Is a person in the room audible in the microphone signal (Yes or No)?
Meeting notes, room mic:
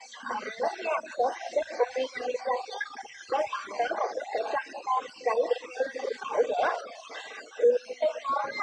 No